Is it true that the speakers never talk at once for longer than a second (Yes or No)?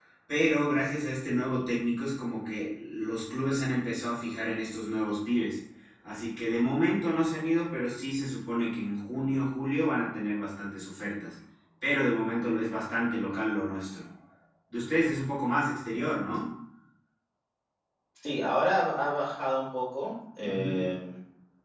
Yes